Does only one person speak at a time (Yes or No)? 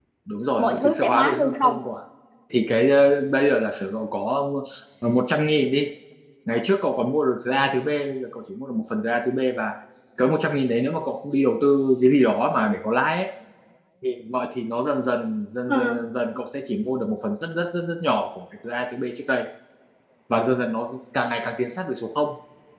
No